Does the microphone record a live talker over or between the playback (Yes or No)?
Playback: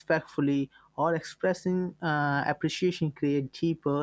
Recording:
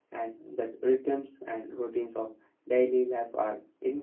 Yes